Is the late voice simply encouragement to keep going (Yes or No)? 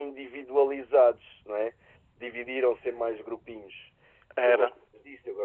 Yes